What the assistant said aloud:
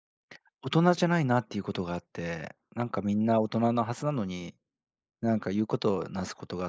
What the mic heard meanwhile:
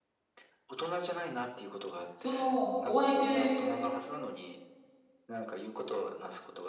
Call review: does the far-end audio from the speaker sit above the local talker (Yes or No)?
No